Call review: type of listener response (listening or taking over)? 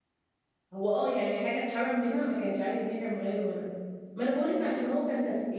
listening